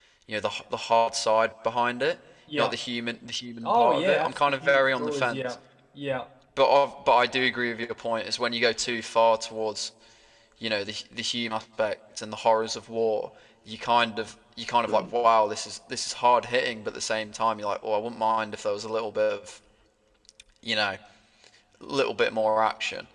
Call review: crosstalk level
present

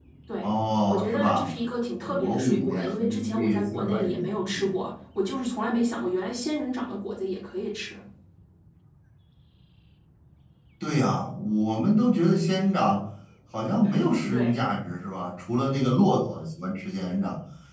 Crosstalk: present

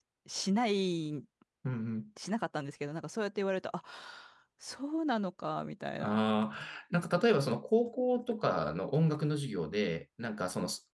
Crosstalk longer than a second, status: none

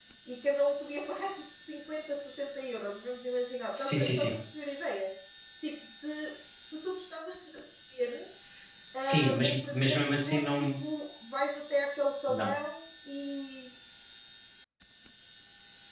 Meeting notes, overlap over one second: present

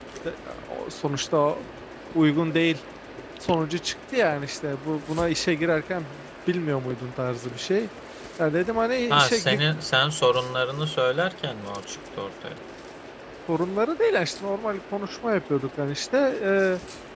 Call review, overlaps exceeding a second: none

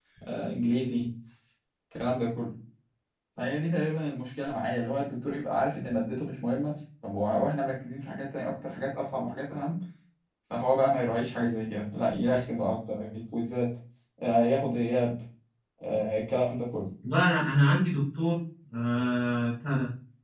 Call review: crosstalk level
none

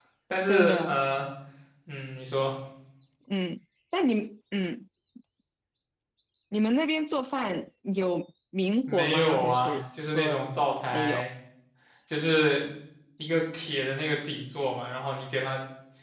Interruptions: present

